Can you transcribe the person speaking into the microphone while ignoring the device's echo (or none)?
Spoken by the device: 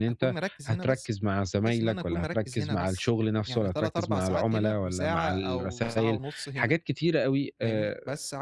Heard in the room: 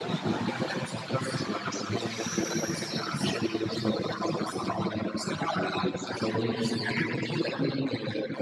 جميل أوي،